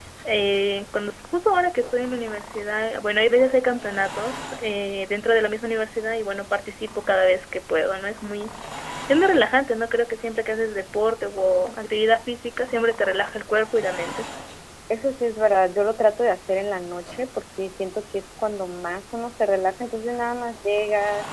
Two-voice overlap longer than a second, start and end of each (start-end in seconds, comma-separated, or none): none